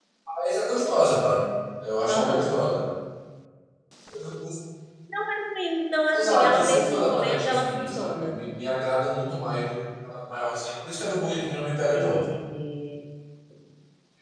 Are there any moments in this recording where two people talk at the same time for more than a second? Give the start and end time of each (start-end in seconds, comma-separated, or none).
6.1-8.4